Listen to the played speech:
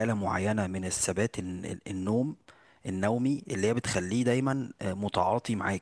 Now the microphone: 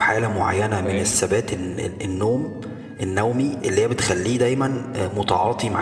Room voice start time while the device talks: 1 s

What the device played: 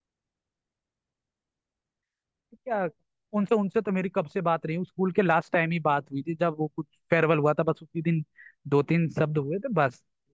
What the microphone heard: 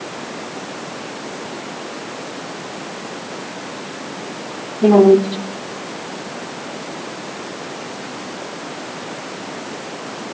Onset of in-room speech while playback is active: 5 s

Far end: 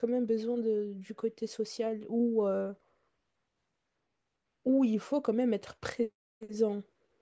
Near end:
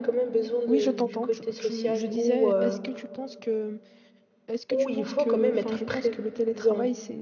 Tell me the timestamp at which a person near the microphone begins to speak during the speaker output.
1 s

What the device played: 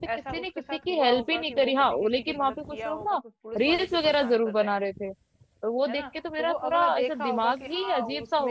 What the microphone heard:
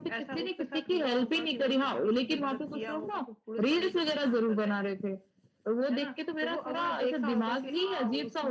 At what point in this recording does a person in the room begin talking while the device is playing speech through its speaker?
none

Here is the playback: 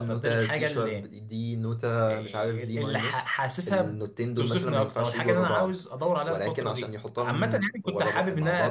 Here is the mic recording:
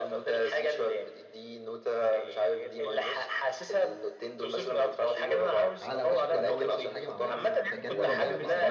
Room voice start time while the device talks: 6 s

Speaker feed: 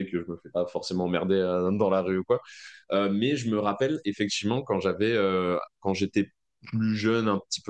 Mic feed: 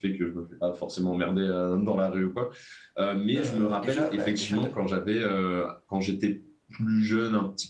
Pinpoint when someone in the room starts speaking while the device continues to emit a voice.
3 s

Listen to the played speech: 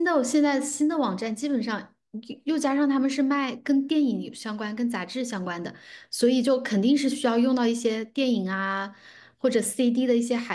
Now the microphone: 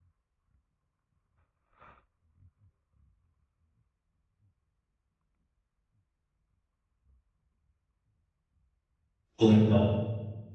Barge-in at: 9 s

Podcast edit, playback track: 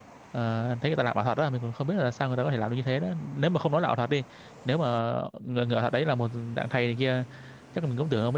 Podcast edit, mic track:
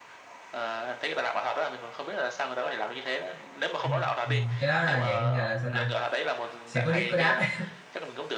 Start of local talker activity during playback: 4 s

